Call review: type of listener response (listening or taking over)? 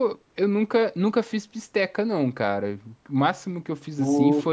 listening